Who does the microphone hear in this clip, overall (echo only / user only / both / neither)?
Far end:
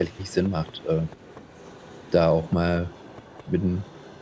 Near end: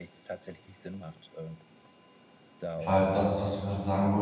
both